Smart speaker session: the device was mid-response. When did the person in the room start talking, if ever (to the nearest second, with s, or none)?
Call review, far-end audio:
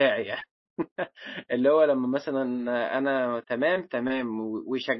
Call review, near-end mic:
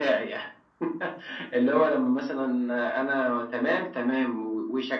none